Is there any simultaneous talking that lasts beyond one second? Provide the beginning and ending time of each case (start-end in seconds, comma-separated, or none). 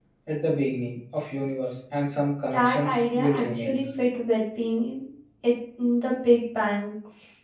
2.5-3.8